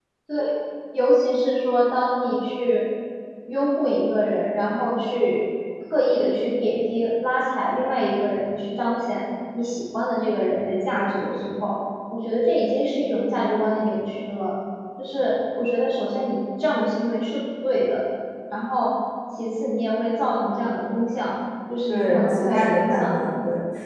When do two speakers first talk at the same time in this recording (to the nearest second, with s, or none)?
22 s